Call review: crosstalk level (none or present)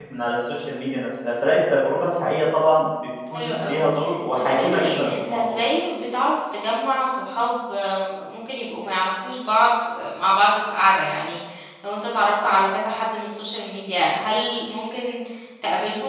present